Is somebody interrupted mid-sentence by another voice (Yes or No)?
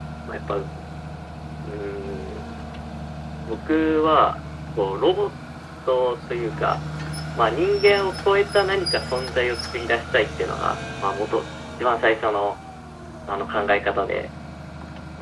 No